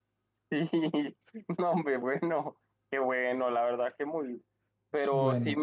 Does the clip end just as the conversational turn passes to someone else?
No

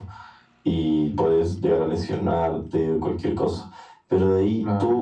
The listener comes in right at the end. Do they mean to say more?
No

